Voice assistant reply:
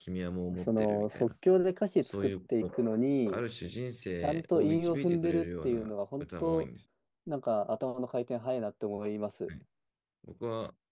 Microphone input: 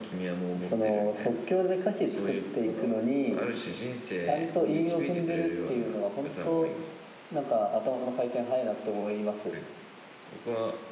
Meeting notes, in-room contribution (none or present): none